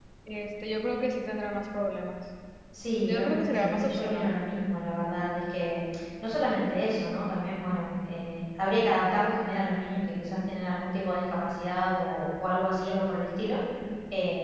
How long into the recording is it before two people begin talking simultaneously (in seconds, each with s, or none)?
3.0 s